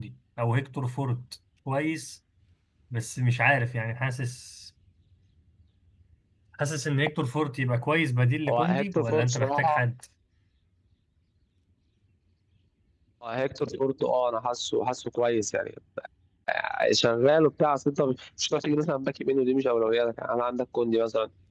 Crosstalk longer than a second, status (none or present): present